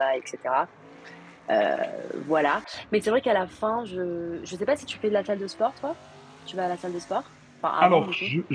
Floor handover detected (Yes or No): Yes